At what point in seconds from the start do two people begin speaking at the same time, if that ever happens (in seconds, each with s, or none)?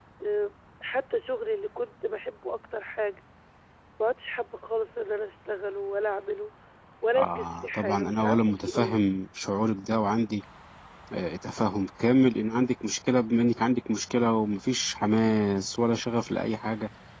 7.2 s